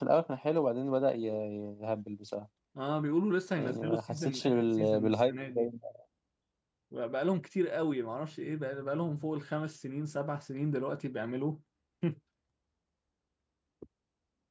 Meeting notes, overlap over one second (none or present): present